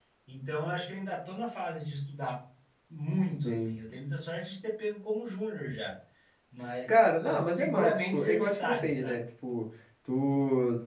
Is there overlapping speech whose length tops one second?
Yes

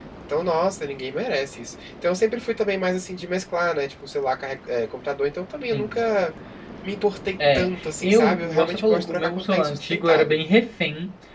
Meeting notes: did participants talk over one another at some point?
Yes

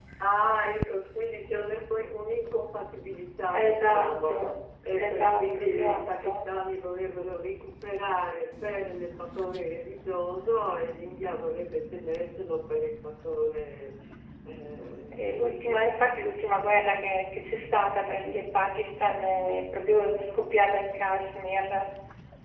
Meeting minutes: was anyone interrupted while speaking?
Yes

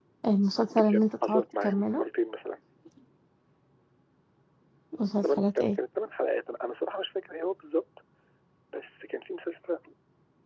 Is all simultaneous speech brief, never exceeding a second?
No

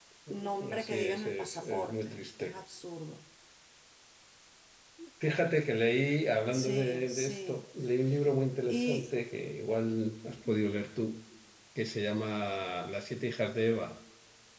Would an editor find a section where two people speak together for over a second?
Yes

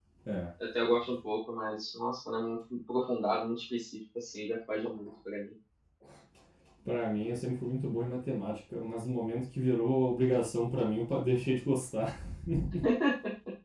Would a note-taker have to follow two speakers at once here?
No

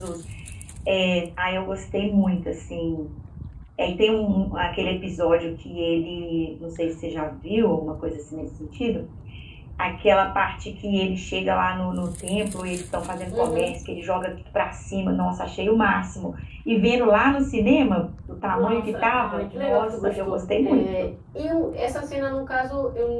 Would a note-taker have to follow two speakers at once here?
Yes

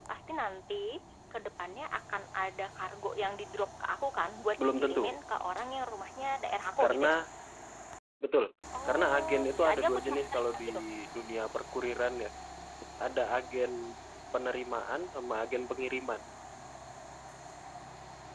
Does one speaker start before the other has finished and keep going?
Yes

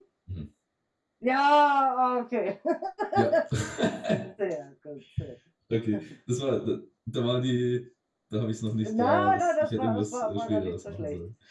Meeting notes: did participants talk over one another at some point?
Yes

